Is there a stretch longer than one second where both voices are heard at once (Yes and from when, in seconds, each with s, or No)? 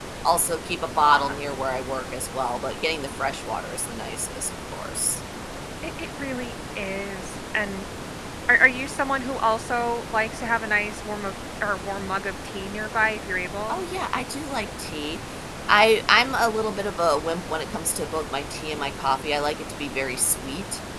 No